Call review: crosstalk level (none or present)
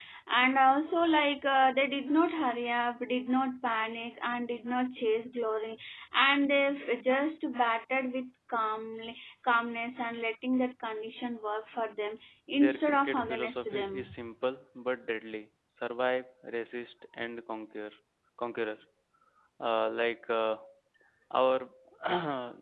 present